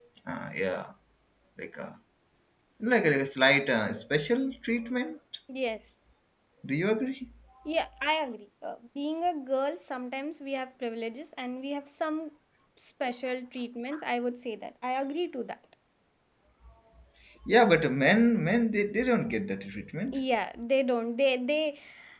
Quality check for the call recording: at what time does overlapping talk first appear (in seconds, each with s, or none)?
none